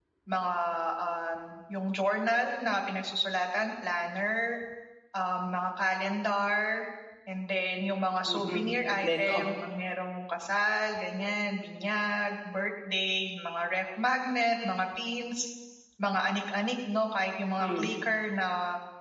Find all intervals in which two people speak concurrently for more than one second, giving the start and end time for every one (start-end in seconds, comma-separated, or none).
8.2-9.4